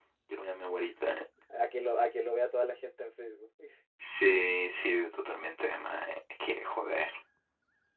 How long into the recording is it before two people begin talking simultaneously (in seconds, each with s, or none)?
none